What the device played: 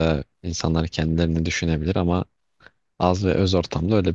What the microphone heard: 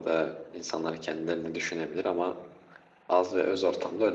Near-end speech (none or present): none